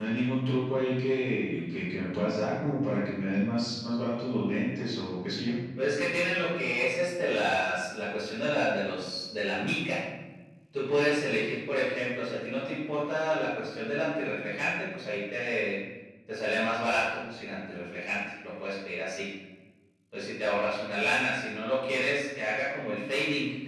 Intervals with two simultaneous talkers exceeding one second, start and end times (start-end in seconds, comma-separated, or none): none